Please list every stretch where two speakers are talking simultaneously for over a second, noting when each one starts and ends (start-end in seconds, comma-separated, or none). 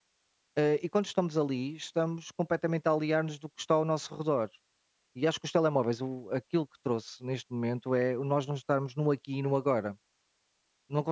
none